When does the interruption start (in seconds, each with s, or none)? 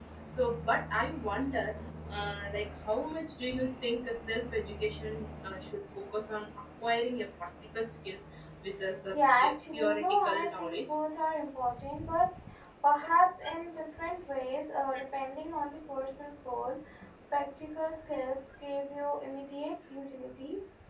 9.1 s